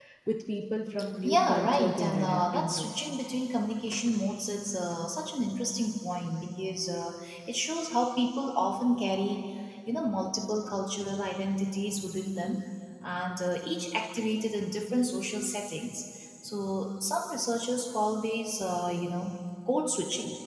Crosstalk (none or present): present